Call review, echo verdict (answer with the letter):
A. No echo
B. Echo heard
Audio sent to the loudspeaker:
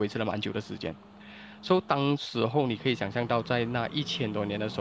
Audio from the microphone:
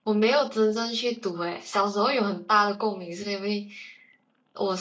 A